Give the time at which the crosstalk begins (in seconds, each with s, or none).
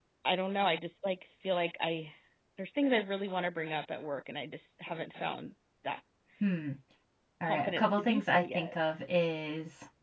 7.5 s